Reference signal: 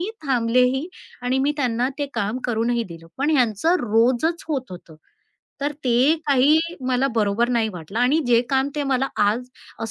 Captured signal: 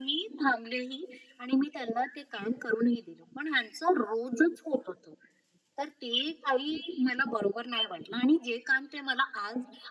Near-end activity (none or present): none